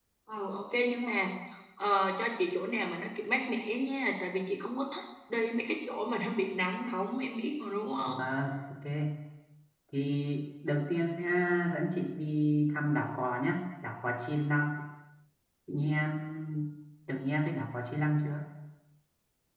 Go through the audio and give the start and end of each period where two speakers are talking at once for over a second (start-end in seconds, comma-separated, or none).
none